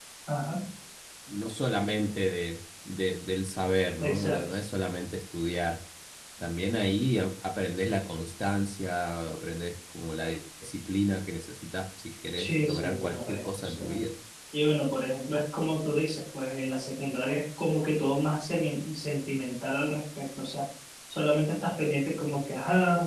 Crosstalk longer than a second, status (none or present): present